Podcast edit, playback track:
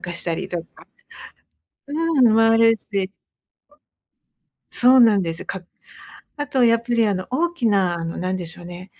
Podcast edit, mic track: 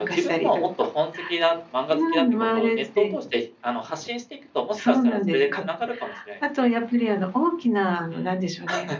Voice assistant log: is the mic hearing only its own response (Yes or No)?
No